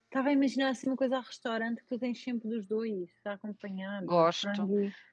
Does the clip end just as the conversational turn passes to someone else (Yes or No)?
Yes